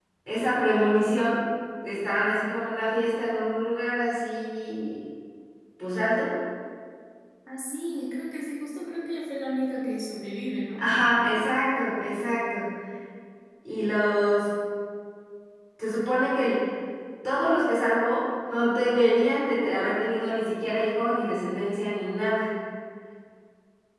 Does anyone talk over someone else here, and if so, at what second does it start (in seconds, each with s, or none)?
none